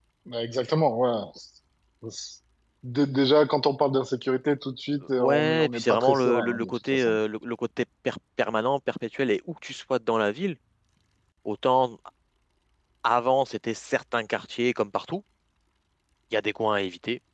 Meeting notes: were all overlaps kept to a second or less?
No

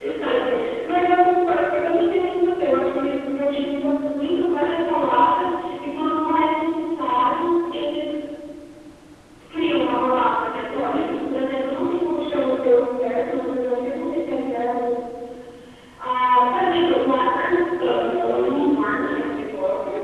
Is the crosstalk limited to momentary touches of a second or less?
Yes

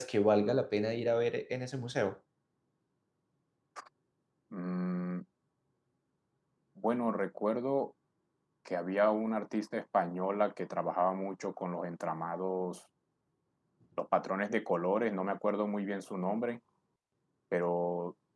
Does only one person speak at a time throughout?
Yes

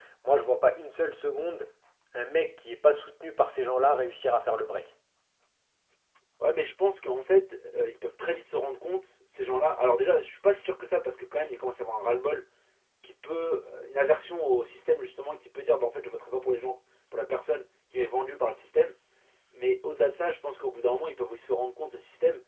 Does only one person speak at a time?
Yes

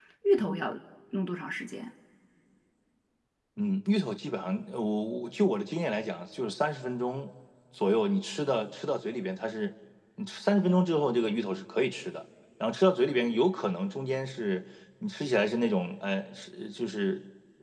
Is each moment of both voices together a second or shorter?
Yes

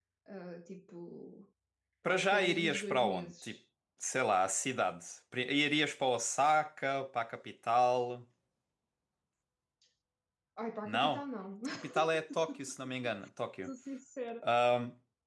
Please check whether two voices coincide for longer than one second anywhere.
Yes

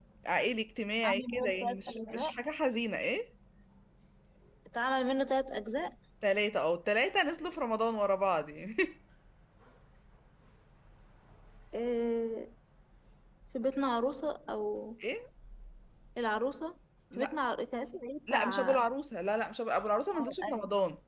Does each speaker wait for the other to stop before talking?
No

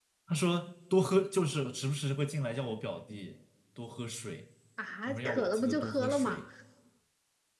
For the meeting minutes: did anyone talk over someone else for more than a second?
Yes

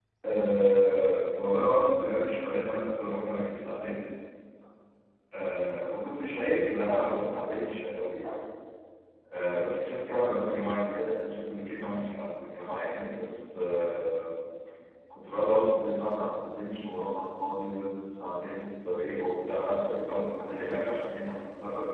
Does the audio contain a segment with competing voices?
No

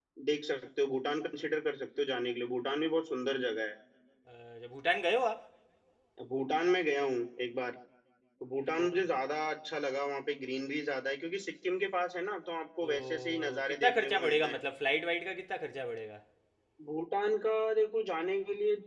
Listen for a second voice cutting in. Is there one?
Yes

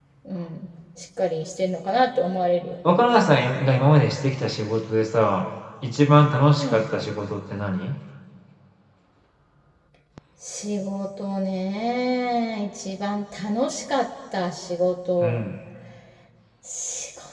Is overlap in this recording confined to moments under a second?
Yes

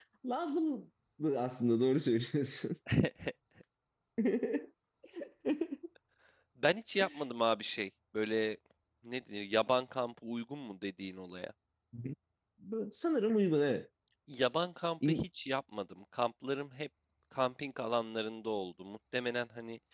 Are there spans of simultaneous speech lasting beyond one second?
No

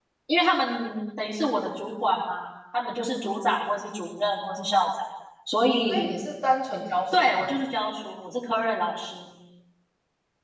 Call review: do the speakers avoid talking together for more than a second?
Yes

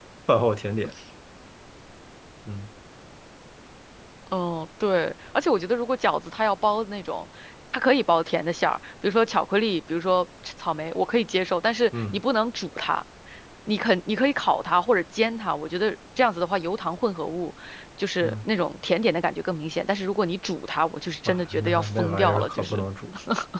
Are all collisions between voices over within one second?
No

